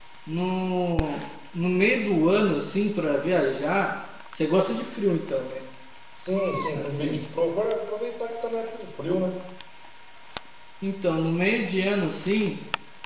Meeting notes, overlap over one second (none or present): none